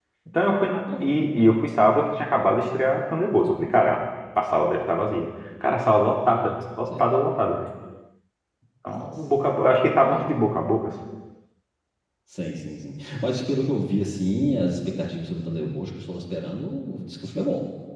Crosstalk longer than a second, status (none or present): none